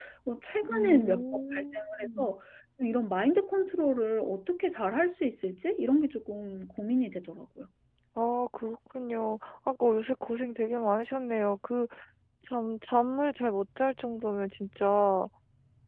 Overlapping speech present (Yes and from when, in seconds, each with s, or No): Yes, from 0.7 s